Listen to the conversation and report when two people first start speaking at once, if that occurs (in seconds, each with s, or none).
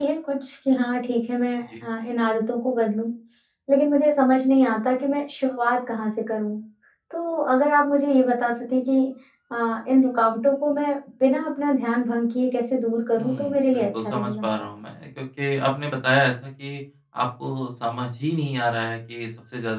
13.2 s